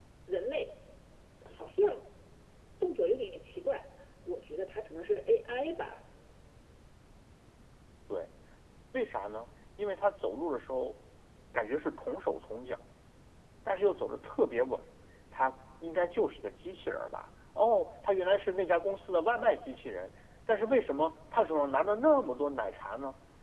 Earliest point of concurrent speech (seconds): none

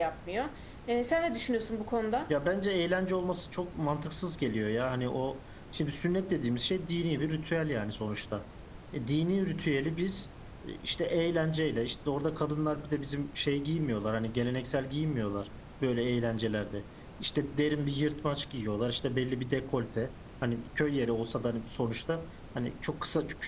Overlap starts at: none

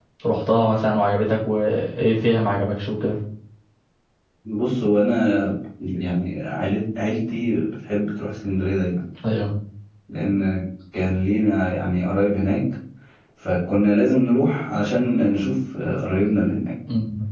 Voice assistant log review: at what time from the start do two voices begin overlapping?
none

